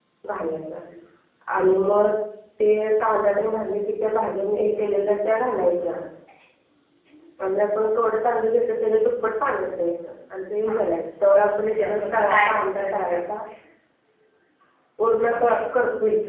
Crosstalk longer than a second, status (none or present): present